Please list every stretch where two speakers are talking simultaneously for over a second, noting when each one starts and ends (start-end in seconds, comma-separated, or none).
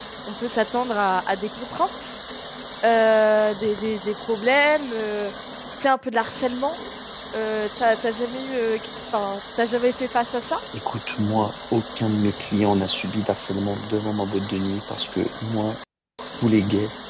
none